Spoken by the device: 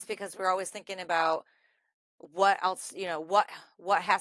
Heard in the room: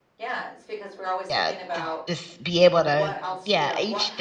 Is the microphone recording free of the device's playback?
No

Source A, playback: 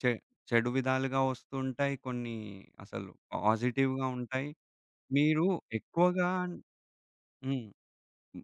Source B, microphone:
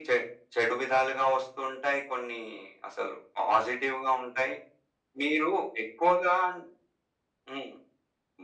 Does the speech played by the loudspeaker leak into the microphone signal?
Yes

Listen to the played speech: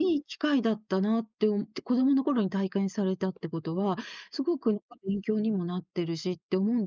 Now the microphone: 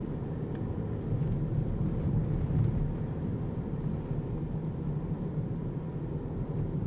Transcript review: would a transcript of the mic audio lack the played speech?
Yes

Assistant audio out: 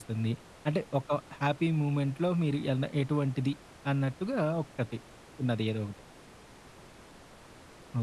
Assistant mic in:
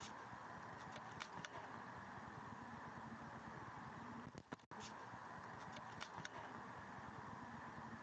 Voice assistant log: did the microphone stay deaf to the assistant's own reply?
Yes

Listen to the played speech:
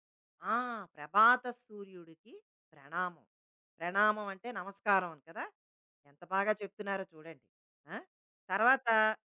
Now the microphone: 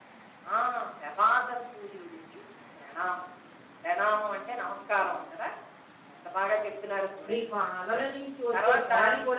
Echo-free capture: No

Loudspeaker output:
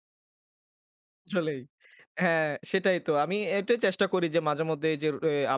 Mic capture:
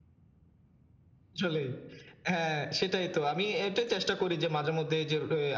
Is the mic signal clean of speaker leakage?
No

